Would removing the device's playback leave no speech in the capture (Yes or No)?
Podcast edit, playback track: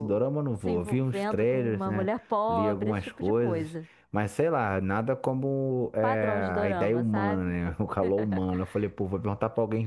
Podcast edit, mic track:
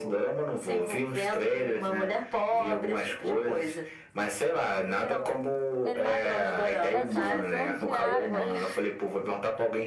No